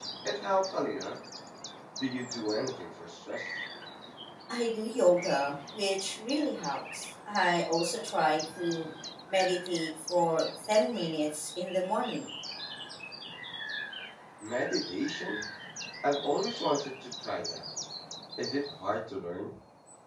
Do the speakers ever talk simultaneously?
No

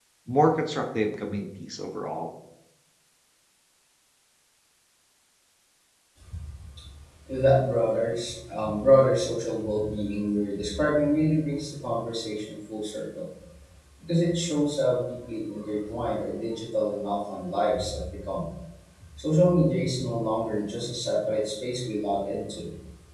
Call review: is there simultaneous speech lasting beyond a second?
No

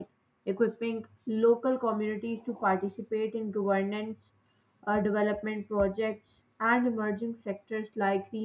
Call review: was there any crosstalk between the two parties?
No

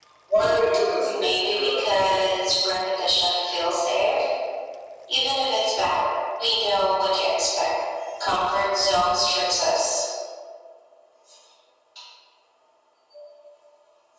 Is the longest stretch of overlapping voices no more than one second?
No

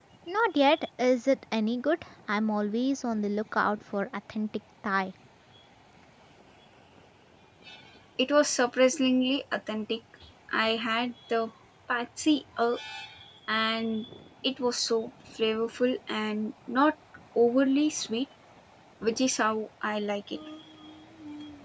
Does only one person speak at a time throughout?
Yes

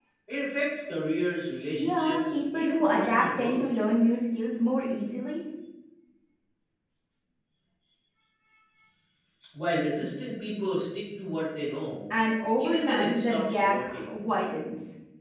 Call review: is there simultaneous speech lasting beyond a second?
Yes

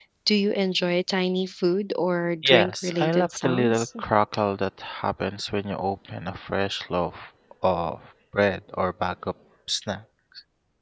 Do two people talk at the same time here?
Yes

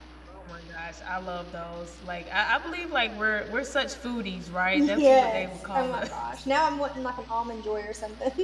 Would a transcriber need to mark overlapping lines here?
Yes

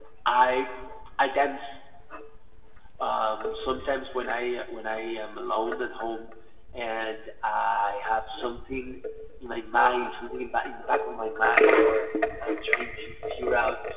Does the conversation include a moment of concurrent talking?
No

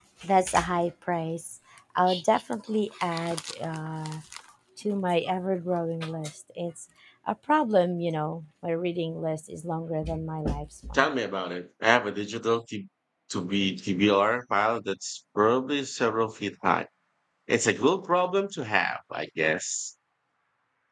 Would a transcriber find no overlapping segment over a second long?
Yes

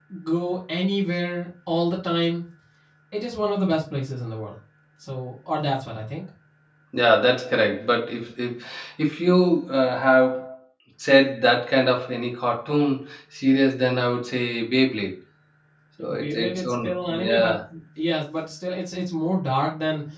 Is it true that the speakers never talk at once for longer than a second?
No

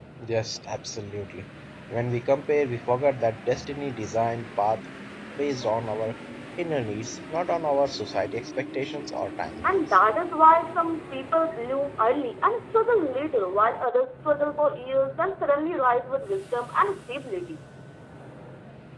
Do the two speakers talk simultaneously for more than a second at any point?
No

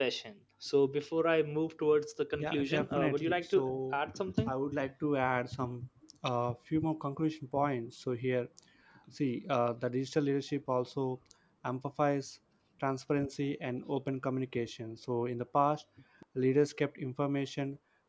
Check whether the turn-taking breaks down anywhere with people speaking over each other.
Yes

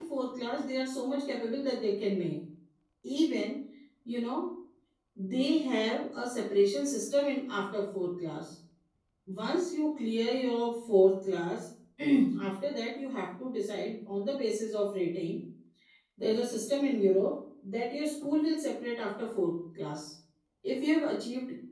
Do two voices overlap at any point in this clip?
No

